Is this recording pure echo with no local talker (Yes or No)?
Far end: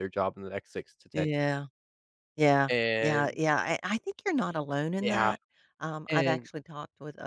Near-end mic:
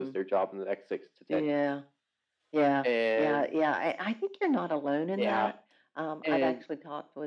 Yes